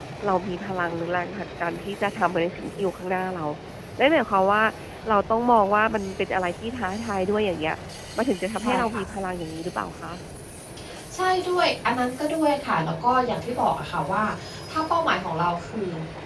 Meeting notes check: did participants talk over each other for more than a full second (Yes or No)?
No